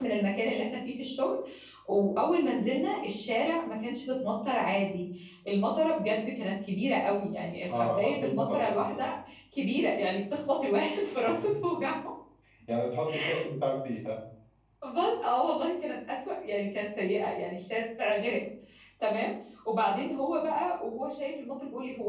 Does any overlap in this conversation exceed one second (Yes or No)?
Yes